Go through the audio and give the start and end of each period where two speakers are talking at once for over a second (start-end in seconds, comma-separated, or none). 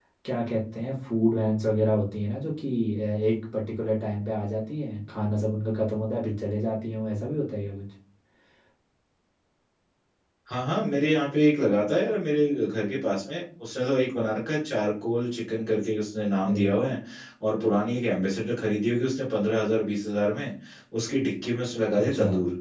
none